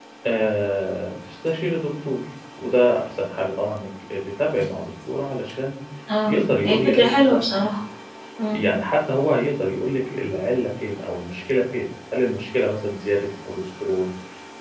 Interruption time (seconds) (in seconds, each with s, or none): 6.3 s